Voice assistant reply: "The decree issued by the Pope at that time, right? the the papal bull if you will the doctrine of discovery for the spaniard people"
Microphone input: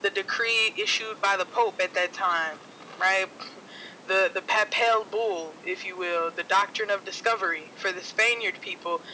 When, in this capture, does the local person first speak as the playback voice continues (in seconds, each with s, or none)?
none